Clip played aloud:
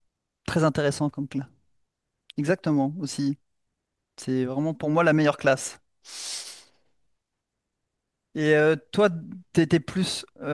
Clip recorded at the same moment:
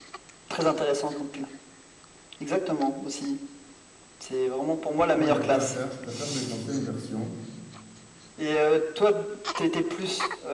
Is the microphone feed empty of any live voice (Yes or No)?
No